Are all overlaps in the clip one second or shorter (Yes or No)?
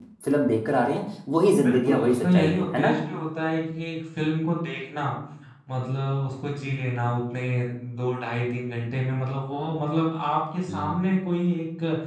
No